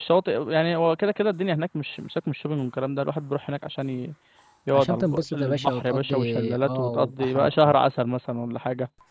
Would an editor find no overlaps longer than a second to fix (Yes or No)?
No